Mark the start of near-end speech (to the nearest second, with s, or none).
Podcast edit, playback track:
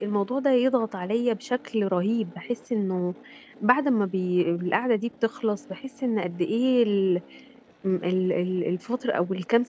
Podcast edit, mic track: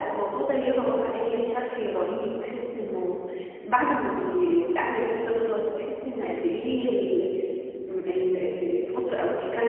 none